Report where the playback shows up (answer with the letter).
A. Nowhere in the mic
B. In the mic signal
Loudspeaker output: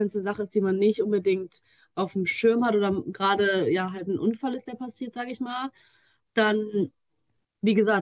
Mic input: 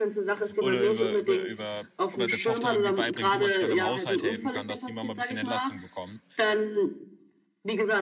B